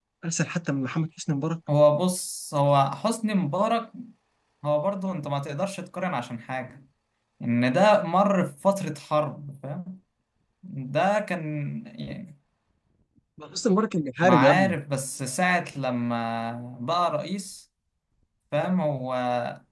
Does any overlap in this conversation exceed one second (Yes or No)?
No